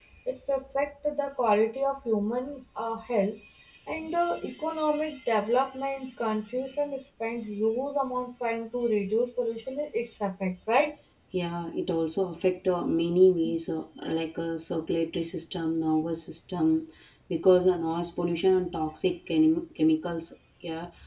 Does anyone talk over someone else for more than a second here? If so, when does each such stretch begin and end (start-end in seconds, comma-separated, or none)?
none